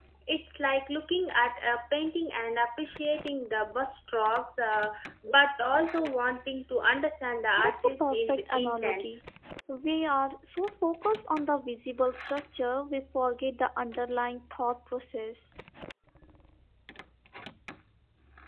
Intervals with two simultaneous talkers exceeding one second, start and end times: 7.6-9.1

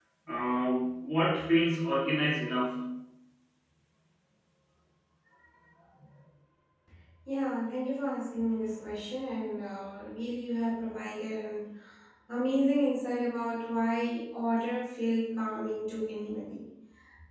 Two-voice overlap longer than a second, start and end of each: none

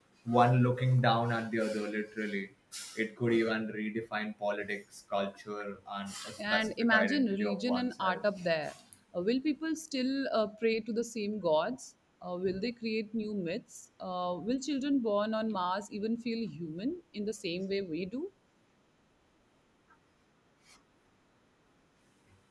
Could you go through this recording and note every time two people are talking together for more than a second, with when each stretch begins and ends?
6.4-8.2

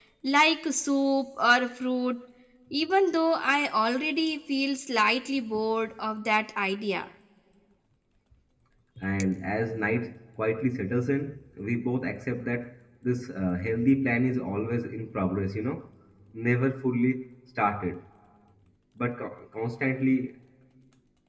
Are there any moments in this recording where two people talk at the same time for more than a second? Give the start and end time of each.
none

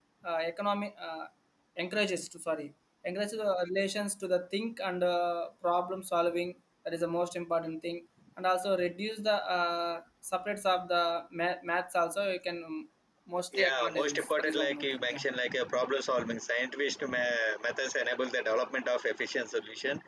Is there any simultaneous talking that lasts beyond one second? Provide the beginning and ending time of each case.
13.6-15.2

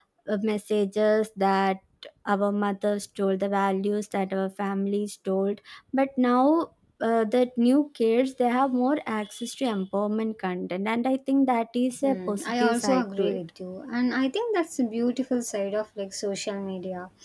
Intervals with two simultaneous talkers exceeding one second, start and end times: 12.0-13.4

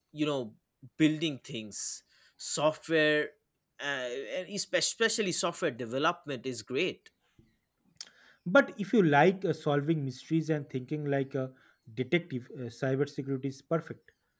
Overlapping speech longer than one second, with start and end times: none

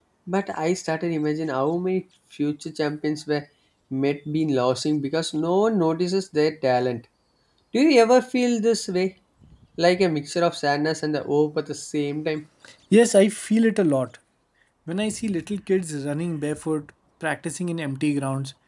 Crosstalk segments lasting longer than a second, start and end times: none

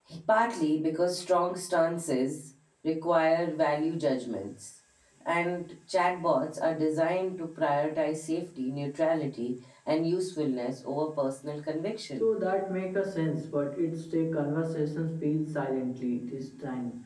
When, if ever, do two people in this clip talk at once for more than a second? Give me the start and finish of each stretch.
none

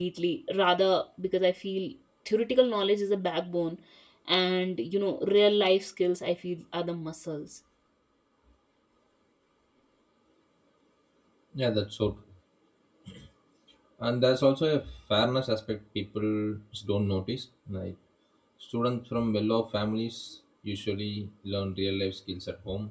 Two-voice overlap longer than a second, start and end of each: none

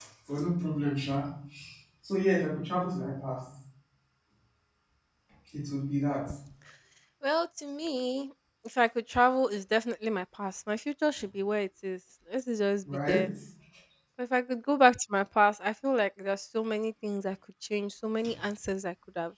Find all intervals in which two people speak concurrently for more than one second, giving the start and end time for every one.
none

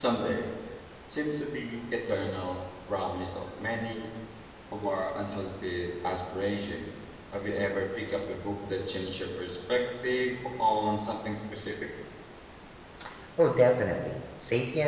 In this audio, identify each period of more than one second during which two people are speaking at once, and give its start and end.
none

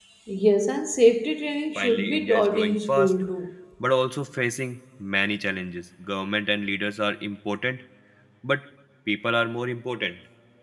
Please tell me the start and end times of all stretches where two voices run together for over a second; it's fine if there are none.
1.8-3.1

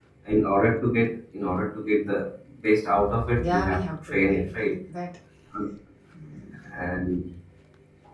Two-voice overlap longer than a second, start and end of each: 3.4-4.7

